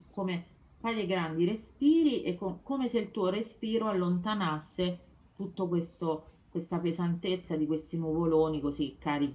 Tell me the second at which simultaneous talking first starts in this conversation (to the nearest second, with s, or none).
none